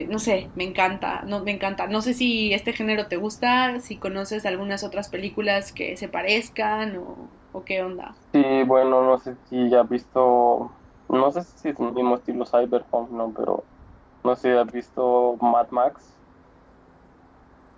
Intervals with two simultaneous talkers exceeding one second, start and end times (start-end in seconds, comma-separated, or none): none